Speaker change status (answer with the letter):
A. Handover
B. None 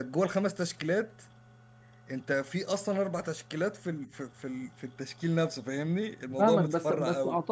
A